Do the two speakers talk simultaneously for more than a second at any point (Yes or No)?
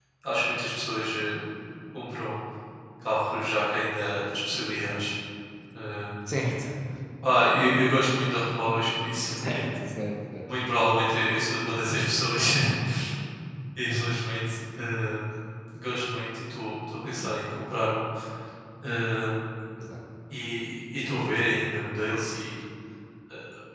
No